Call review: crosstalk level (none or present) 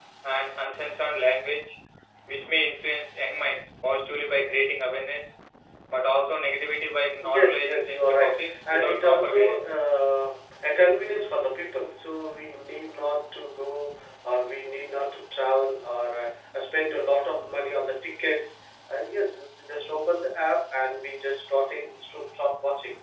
present